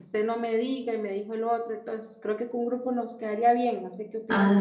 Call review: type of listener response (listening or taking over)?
taking over